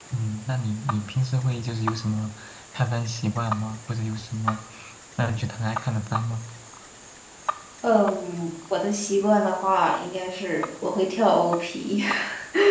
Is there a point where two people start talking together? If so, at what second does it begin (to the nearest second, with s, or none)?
none